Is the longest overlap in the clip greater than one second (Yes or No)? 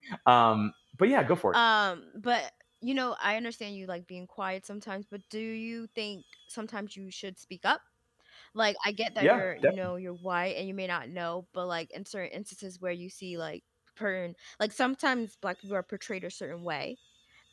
No